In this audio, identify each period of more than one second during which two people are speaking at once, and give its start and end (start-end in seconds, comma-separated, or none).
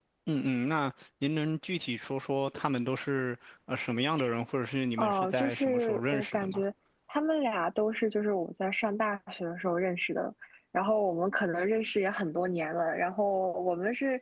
5.0-6.6